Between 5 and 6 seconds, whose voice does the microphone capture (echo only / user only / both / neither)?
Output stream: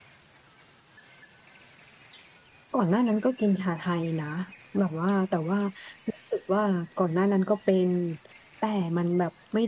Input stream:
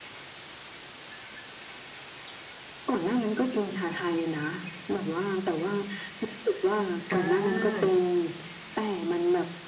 echo only